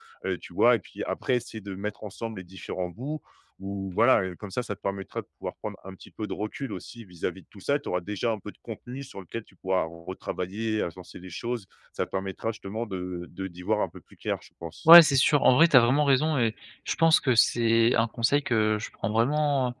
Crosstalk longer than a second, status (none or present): none